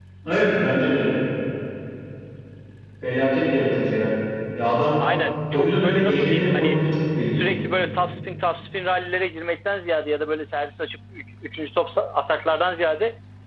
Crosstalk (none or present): present